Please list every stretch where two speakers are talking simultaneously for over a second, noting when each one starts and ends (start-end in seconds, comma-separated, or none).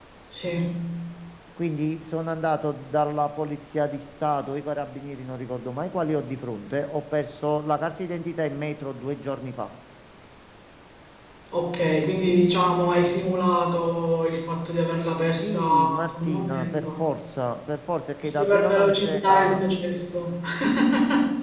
15.4-16.9, 18.2-19.6